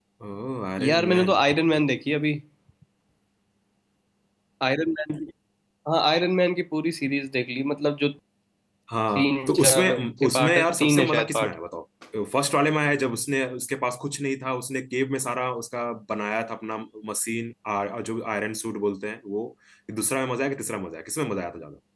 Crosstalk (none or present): present